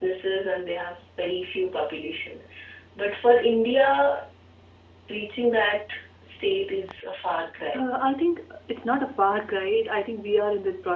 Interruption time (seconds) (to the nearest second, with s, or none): none